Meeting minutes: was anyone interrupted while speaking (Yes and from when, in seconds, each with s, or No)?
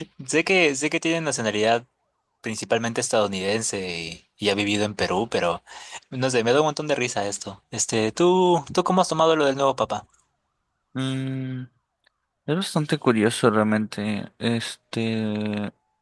No